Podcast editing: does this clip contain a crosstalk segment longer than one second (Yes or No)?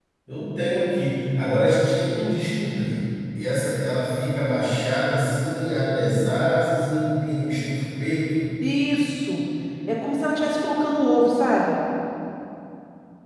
No